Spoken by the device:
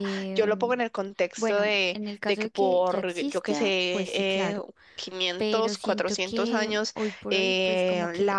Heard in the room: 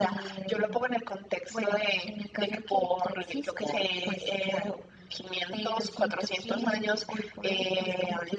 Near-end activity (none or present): none